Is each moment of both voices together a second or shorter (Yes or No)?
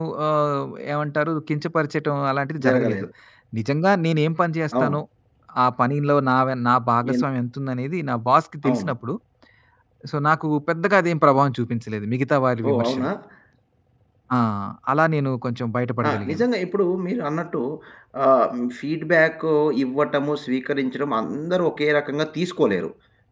Yes